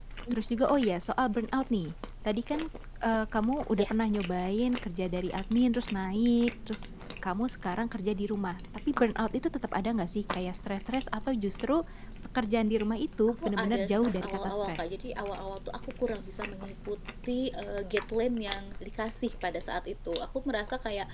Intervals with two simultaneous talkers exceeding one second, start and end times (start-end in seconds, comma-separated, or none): 13.4-14.8